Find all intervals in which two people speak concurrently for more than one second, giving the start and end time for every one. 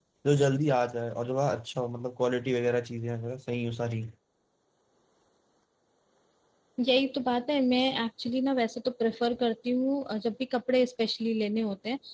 none

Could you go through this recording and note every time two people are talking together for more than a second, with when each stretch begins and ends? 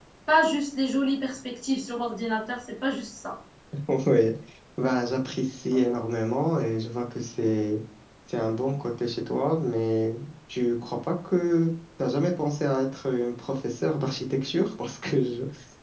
none

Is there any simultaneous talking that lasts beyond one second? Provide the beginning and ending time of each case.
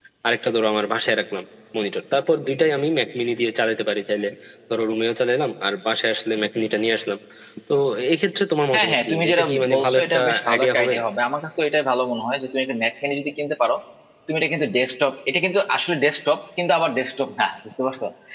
8.7-10.9

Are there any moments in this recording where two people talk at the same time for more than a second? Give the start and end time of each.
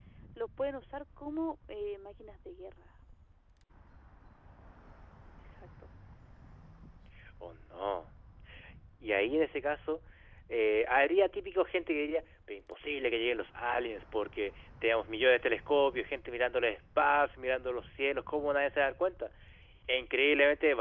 none

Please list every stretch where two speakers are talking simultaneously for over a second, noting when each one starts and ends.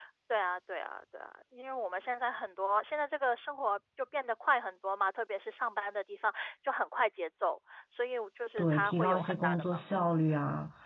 8.6-9.9

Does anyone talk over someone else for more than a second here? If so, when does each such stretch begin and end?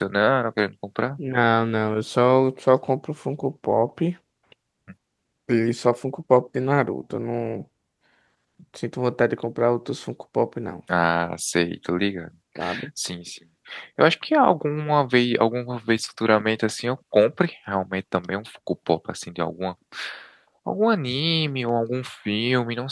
none

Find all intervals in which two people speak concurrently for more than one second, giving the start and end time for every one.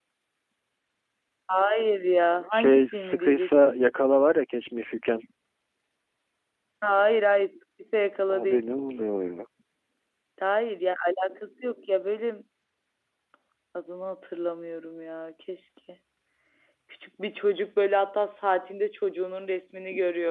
2.5-3.8

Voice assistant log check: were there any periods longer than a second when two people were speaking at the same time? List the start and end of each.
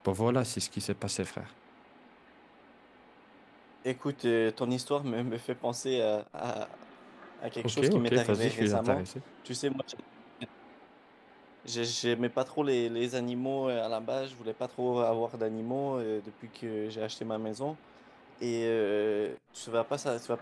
7.6-9.0

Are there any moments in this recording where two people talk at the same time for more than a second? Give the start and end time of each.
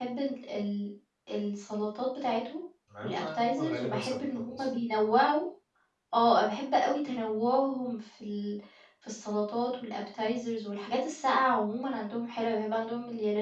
3.0-4.7

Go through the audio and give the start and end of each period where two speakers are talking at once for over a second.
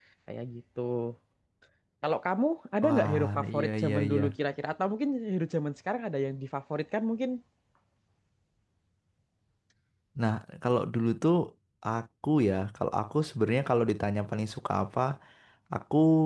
2.8-4.2

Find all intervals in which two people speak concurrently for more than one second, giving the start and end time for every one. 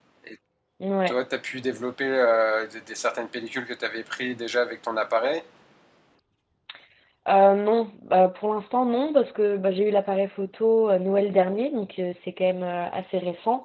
none

